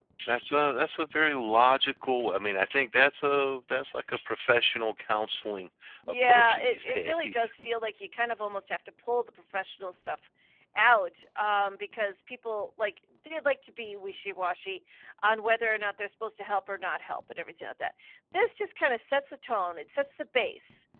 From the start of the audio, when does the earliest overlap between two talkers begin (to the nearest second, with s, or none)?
6 s